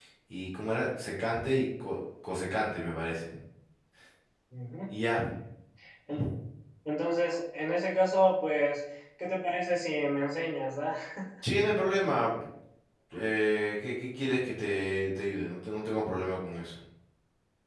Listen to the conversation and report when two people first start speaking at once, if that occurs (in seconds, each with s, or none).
none